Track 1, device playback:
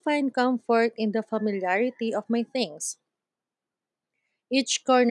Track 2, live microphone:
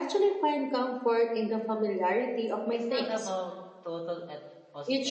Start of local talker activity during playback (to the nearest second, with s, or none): 3 s